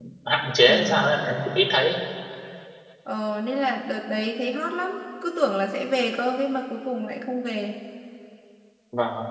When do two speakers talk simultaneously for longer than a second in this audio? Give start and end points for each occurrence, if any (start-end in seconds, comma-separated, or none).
none